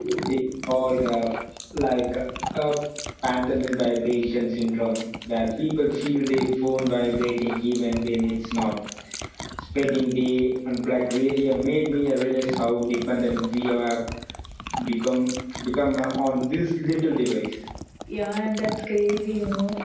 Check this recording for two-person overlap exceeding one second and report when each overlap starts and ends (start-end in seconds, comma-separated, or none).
none